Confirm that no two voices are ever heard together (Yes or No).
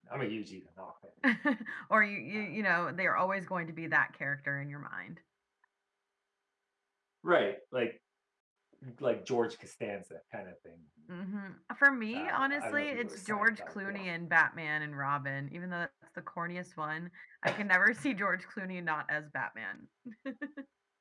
No